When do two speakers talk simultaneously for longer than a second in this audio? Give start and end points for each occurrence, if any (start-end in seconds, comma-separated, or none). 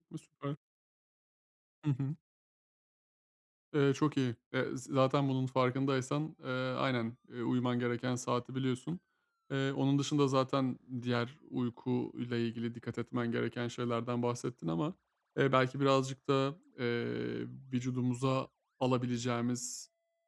none